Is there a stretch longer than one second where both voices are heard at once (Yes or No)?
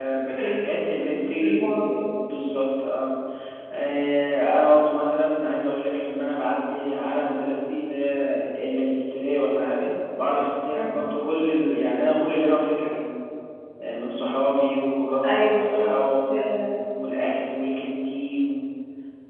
Yes